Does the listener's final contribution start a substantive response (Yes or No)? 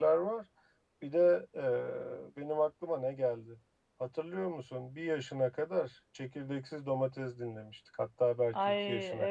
Yes